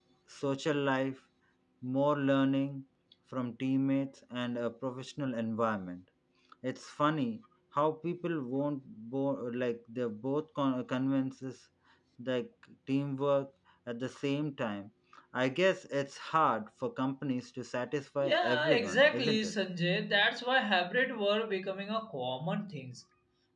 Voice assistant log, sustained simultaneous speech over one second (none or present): present